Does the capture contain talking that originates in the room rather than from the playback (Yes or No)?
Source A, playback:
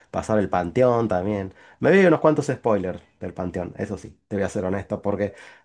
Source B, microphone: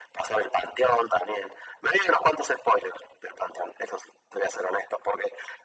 No